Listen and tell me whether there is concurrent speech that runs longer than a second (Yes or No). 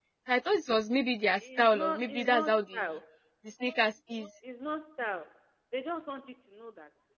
Yes